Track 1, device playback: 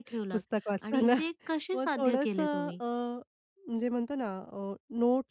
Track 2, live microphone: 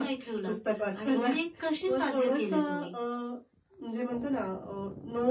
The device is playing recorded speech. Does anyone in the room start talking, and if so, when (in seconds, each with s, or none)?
none